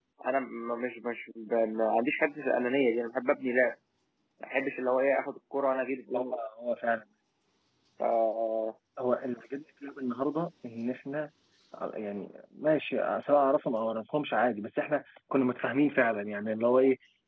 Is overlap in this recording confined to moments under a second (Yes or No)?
Yes